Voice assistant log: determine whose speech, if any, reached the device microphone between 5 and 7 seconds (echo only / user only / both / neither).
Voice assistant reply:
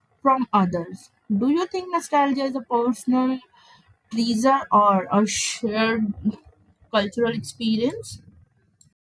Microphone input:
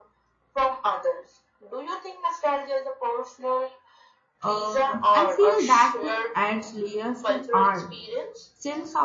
both